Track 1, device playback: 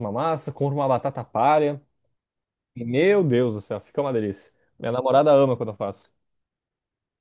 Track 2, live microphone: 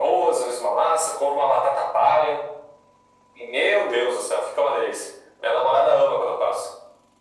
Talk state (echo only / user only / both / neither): echo only